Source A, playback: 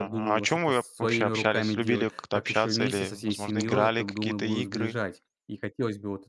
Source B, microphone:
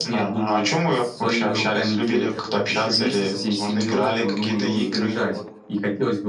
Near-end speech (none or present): present